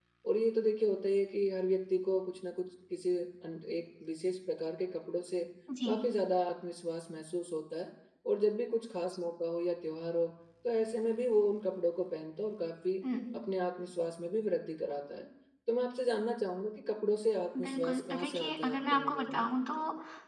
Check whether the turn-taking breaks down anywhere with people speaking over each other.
Yes, from 17.5 s

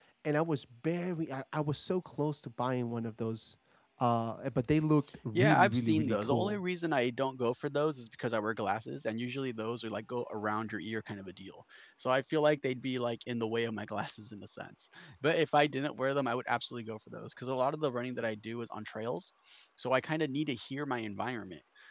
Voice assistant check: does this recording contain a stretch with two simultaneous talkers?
Yes, from 5.3 s

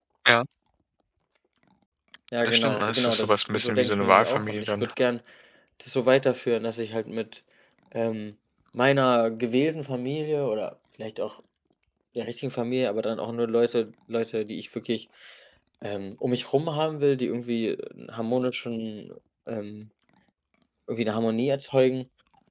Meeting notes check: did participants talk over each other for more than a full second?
Yes, from 2.4 s

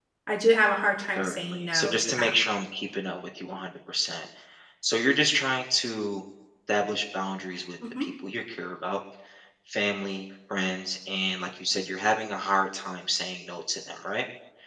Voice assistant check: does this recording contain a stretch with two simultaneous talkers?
Yes, from 1.2 s

